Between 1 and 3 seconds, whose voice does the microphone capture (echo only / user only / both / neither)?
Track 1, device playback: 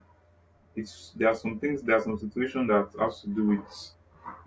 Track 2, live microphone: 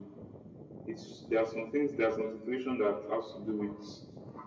echo only